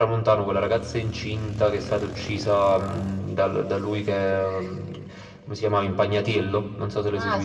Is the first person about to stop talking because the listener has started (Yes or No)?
Yes